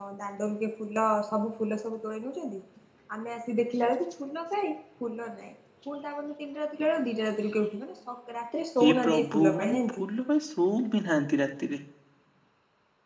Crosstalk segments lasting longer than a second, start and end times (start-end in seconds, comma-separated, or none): 8.8-10.0